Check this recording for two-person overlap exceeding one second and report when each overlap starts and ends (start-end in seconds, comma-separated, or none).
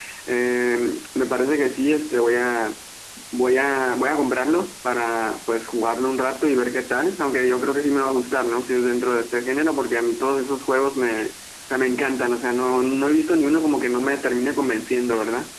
none